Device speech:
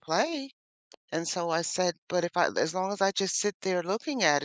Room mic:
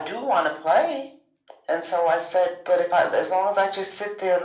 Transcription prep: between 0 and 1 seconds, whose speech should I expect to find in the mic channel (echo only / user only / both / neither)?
echo only